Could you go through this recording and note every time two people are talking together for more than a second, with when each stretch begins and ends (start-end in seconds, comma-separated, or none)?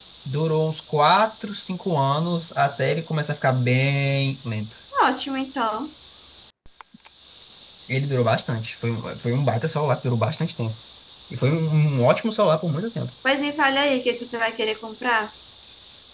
none